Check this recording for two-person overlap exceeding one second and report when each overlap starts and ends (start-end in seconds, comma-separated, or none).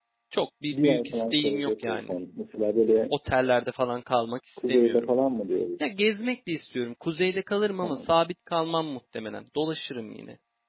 0.7-2.1